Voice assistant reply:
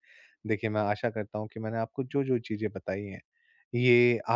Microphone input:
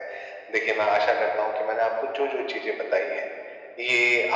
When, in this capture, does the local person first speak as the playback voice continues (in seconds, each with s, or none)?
none